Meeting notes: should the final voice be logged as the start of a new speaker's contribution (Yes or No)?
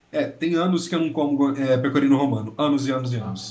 Yes